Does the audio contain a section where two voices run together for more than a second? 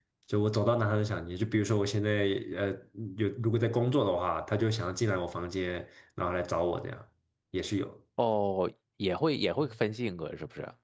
No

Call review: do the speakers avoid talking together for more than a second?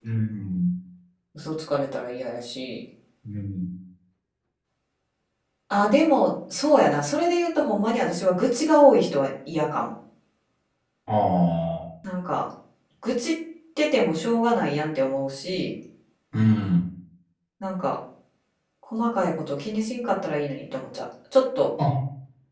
Yes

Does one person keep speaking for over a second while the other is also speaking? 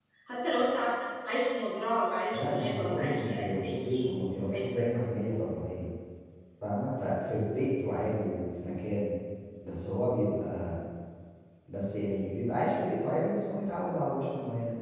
Yes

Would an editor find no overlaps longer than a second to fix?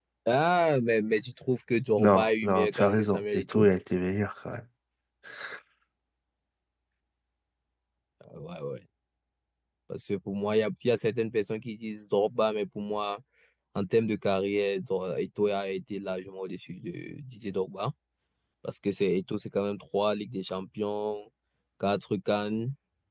No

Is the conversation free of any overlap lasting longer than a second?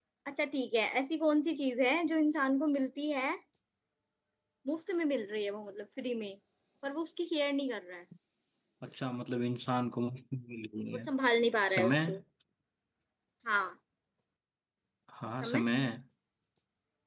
Yes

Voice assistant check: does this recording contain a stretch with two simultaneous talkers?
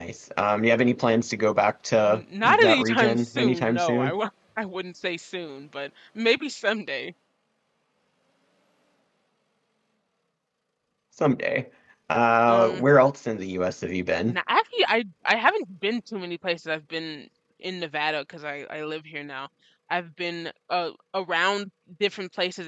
Yes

